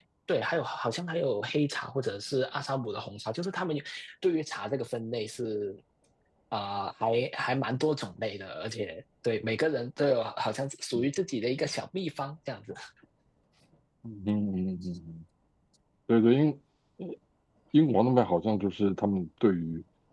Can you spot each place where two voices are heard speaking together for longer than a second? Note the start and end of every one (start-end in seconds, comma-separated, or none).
none